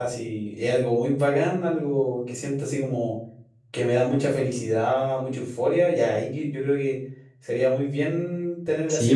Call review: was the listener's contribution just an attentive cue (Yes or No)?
No